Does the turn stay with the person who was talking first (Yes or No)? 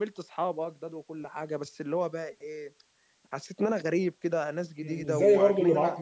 No